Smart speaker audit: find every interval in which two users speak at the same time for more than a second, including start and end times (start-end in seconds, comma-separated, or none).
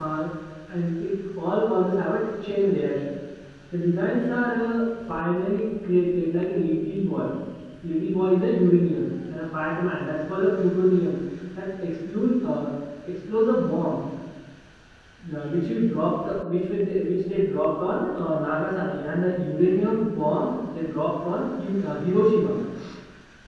none